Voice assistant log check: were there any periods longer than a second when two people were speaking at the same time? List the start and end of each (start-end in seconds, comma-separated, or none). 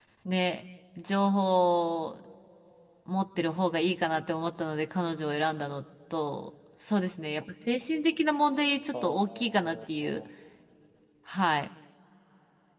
8.9-10.2